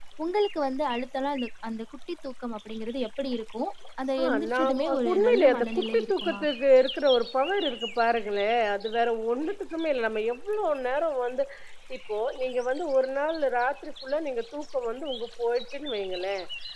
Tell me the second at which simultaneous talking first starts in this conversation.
4.2 s

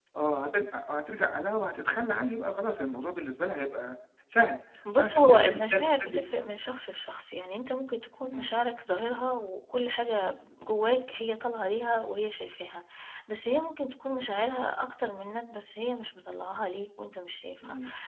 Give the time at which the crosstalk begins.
5.0 s

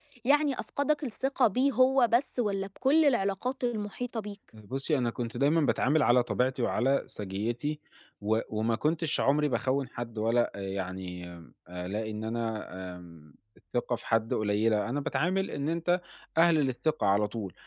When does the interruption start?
none

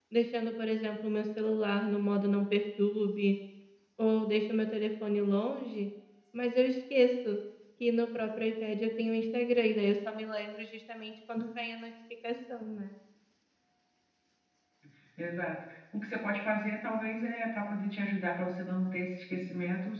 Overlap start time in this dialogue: none

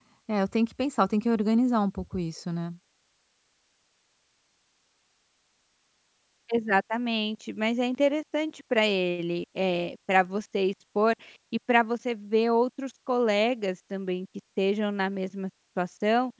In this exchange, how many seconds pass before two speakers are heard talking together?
none

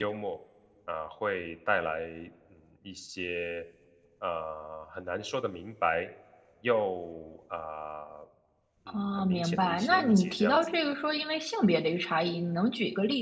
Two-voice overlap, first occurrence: 8.9 s

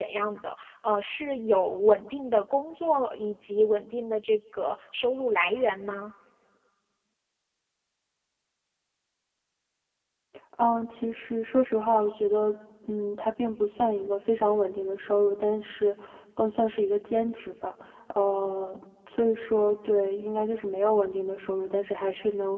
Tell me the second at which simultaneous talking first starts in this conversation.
none

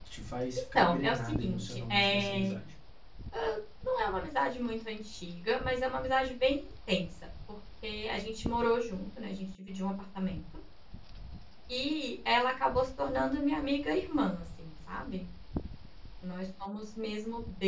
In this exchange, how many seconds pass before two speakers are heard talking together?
0.6 s

